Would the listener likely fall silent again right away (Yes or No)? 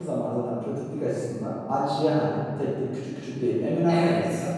Yes